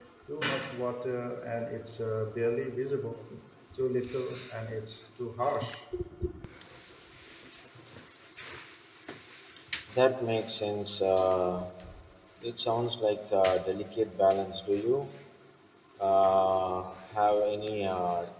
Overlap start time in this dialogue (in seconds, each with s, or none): none